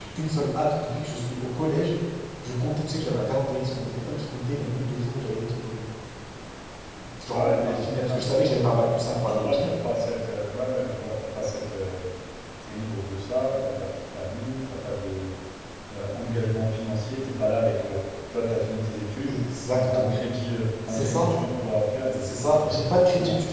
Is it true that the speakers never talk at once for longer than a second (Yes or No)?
No